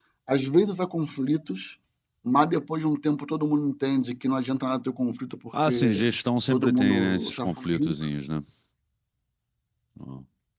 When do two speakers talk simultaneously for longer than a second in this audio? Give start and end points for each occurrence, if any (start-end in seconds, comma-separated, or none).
6.5-7.9